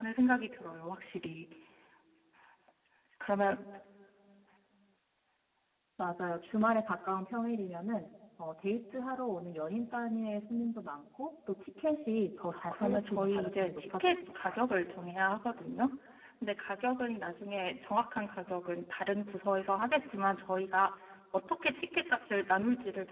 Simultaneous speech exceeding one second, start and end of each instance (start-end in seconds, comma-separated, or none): 12.5-14.6